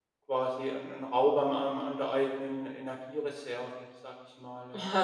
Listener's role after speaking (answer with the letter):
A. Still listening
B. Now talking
B